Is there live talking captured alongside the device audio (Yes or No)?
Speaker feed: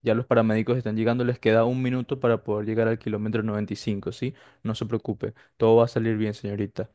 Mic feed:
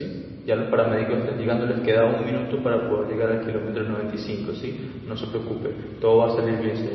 No